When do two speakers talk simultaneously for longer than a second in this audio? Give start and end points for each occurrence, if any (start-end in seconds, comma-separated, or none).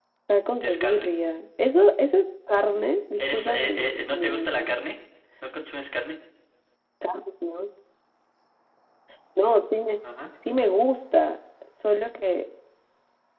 3.2-4.7